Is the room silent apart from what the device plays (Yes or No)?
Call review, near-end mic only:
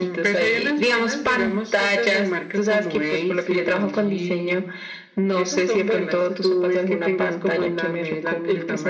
Yes